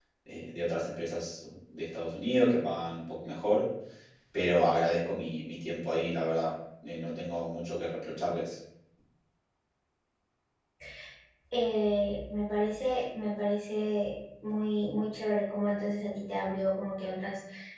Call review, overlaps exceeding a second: none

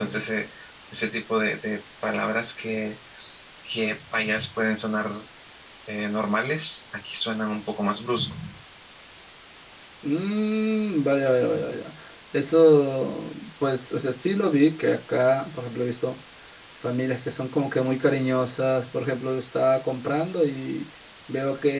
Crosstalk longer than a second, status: none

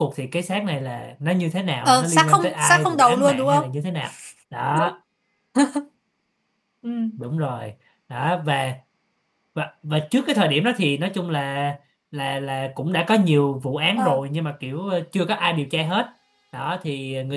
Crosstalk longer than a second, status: present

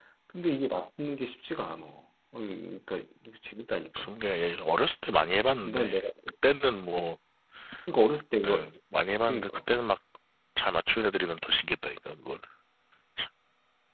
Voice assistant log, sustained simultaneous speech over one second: none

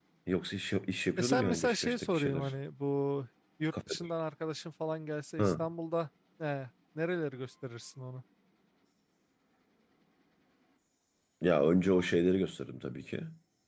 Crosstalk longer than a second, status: present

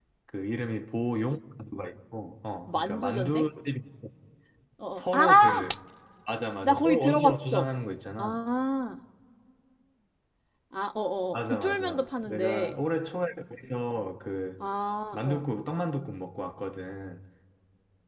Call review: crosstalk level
present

